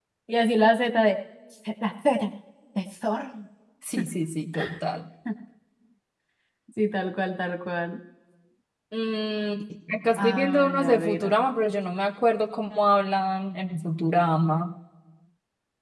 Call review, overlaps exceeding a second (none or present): present